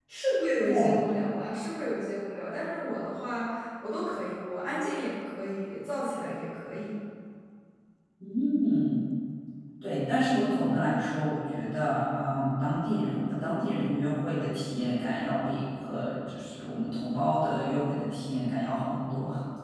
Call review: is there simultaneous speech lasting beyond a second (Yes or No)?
No